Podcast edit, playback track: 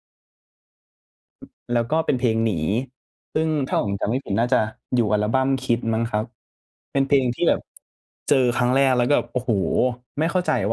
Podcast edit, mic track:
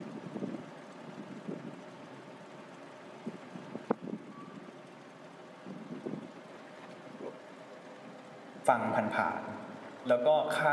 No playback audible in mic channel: Yes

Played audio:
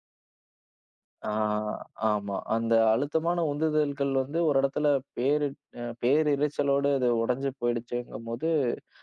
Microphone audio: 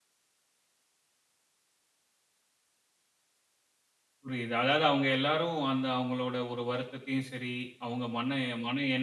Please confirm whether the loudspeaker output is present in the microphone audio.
No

